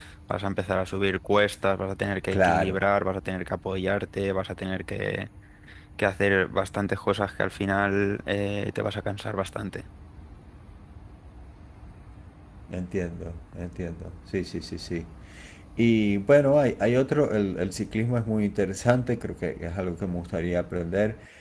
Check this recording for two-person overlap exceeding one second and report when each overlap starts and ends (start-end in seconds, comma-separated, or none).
none